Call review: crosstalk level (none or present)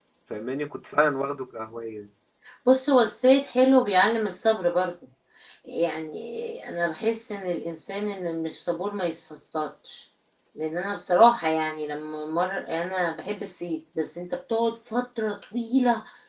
none